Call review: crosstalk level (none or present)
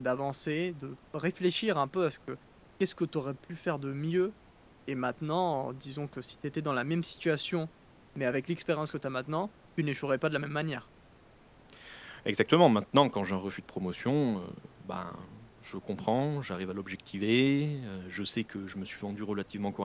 none